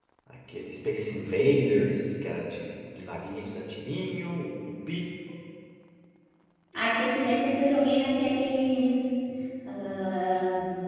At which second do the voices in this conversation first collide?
none

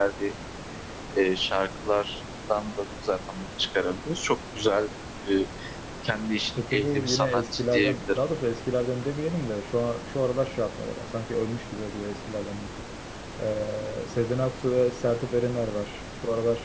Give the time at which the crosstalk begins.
6.6 s

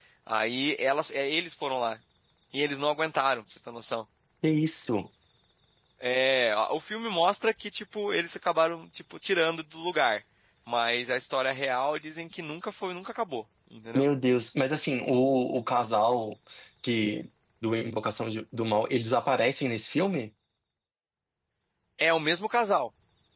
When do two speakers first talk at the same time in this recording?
none

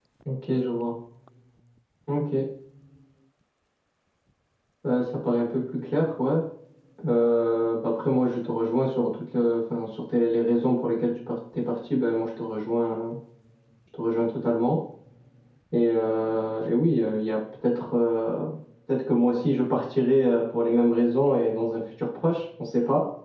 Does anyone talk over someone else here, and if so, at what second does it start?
none

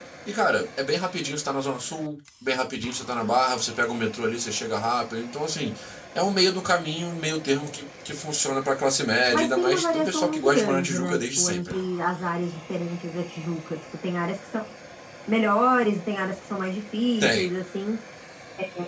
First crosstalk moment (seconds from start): 9.3 s

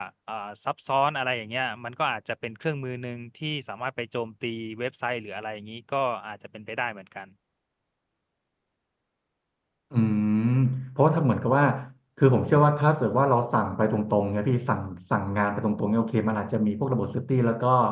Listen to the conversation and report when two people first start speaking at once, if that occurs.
none

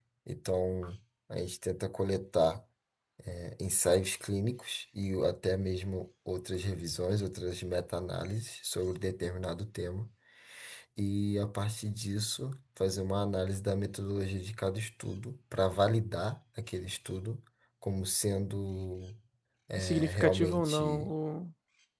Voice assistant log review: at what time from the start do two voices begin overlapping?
19.8 s

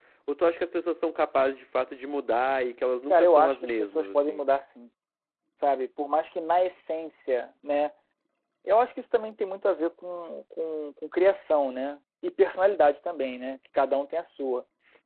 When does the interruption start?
3.1 s

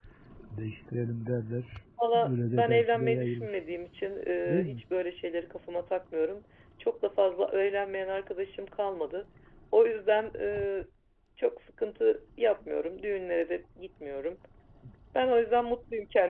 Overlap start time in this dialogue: 2.2 s

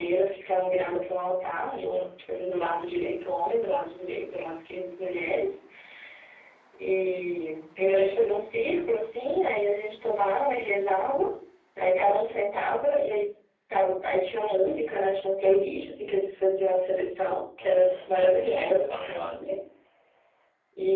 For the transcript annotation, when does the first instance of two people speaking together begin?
17.6 s

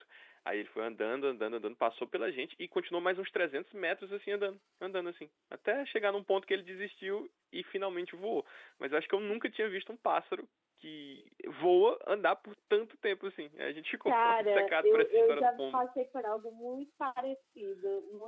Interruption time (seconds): 14.1 s

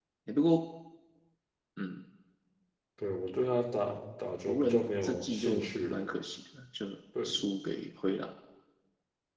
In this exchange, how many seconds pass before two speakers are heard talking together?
4.5 s

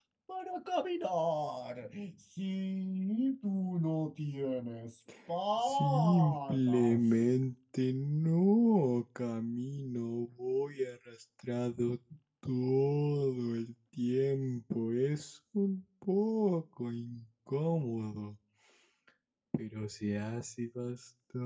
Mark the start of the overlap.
5.6 s

